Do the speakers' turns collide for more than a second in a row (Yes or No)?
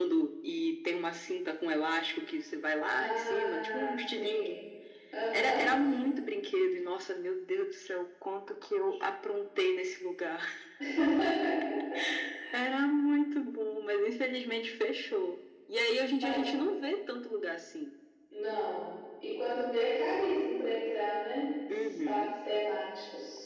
Yes